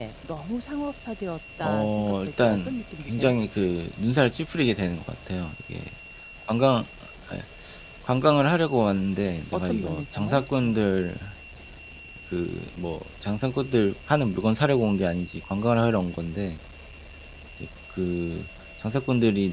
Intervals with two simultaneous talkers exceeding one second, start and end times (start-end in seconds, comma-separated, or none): 1.6-3.3, 9.5-10.7